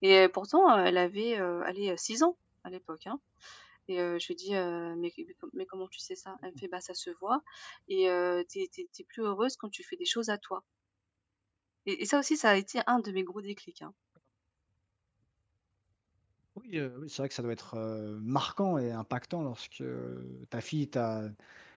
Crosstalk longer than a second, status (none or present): none